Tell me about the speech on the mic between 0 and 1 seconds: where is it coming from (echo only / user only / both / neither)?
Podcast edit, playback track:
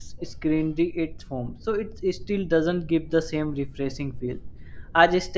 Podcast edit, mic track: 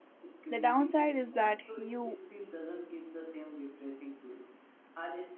both